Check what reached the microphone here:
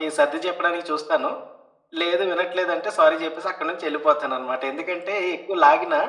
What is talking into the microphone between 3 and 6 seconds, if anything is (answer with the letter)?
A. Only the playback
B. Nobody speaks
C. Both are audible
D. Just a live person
A